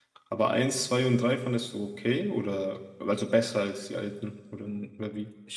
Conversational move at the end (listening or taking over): taking over